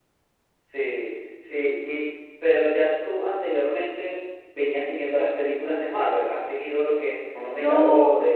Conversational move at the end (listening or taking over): taking over